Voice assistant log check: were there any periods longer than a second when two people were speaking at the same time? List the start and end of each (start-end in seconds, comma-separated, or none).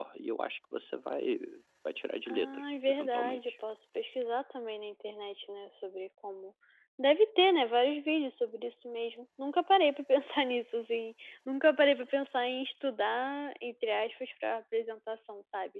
2.3-3.5